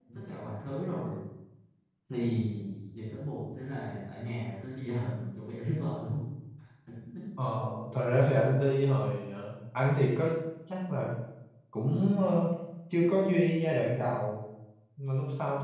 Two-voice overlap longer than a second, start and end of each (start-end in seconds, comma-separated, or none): none